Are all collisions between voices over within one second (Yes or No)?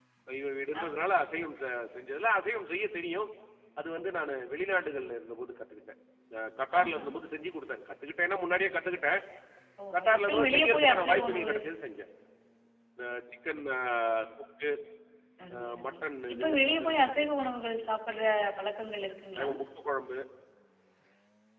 No